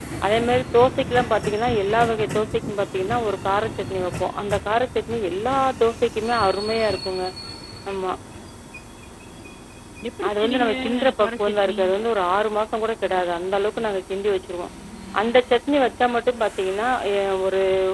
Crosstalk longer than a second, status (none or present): present